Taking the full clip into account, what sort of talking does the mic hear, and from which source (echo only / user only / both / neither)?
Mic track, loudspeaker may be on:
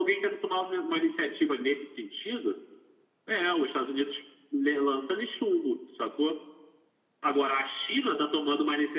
echo only